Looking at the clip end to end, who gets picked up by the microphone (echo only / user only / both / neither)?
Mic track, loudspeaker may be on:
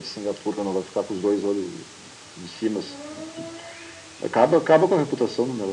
echo only